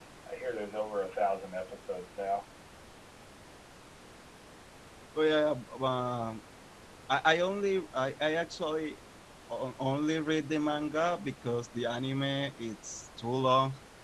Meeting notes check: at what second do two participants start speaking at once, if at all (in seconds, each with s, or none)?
none